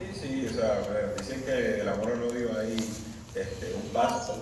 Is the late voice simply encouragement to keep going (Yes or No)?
Yes